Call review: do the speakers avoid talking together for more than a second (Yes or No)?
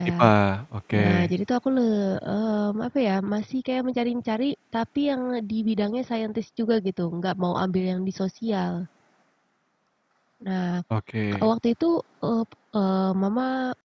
Yes